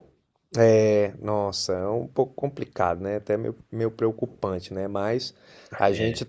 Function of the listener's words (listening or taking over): listening